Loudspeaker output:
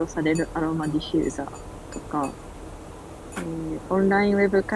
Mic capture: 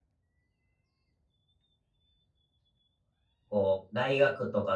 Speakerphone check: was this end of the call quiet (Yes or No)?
No